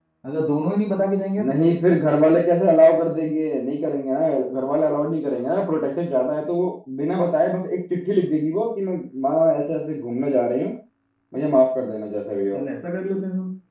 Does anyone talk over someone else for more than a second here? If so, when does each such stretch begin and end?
none

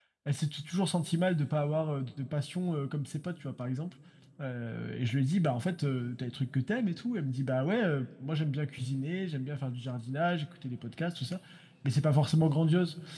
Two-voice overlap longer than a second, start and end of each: none

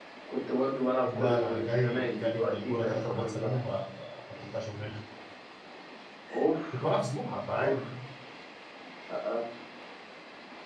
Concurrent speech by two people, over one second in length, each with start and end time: 1.1-3.6

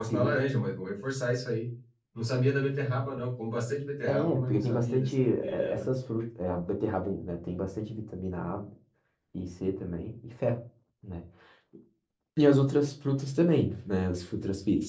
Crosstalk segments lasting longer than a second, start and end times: 4.1-5.8

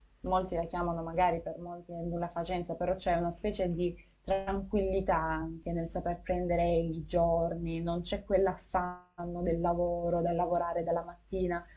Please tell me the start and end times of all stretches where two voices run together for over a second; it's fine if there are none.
none

